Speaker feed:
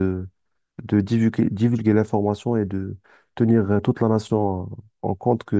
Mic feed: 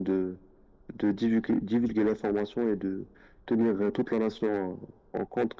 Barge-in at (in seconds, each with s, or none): none